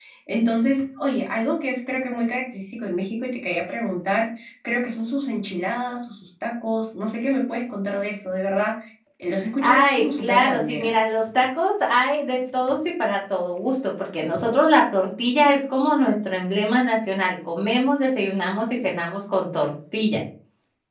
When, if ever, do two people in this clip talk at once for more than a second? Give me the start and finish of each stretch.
9.6-10.9

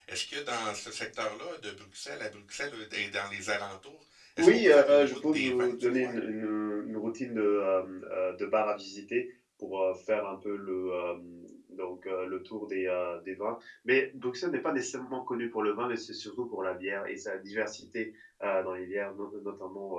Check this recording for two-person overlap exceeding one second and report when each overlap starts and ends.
4.4-6.1

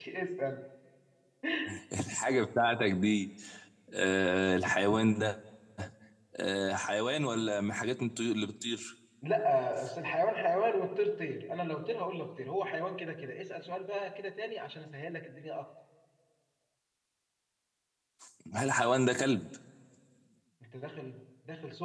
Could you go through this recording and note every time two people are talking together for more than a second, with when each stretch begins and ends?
none

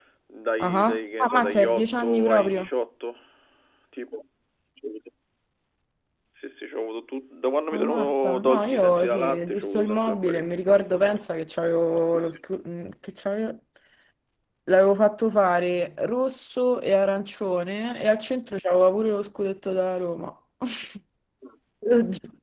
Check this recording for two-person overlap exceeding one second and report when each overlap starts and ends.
0.6-2.7, 7.7-10.4

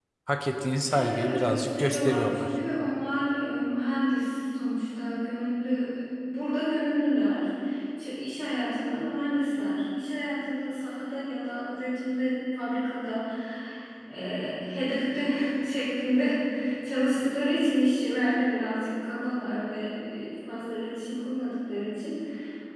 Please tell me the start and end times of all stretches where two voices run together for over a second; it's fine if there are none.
0.9-2.5

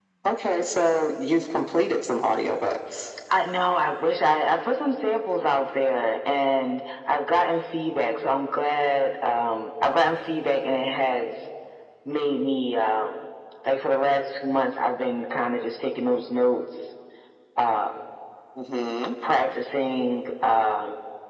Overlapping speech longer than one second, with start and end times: none

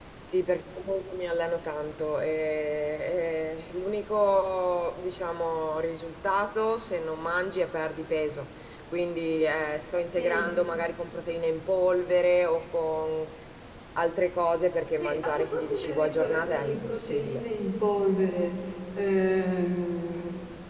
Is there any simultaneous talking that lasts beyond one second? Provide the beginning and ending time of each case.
15.0-17.4

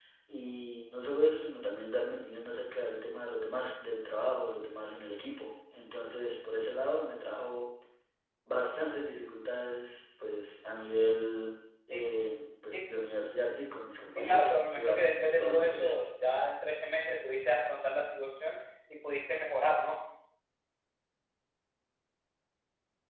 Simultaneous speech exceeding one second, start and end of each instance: 14.2-16.0

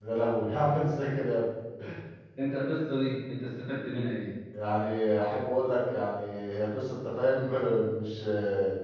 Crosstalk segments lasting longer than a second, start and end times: none

